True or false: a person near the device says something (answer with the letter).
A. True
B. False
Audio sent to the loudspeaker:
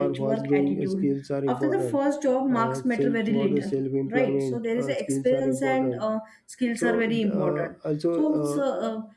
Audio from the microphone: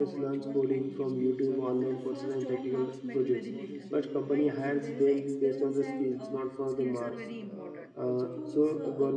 A